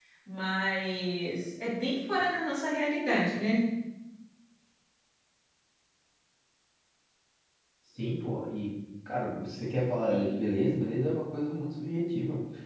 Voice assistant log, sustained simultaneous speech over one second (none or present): none